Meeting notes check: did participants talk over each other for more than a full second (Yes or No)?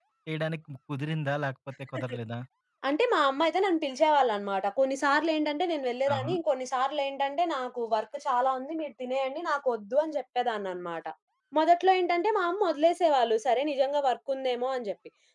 No